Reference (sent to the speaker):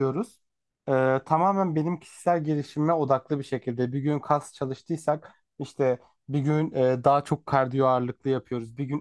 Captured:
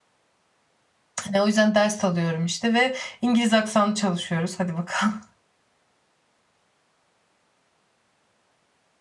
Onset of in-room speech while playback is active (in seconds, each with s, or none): 1.2 s